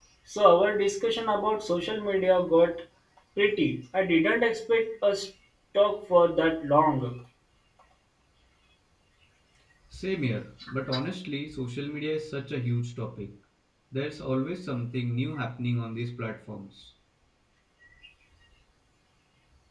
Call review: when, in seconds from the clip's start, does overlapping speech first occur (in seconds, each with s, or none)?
none